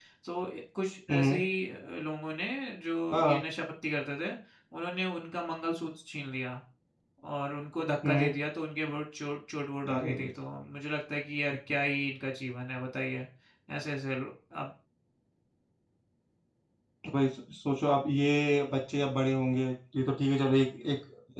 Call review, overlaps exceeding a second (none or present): none